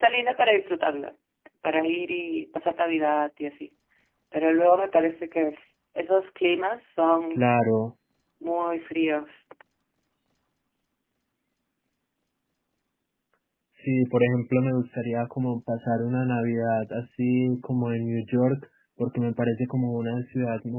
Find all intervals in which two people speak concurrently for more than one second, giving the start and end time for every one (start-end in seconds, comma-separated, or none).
none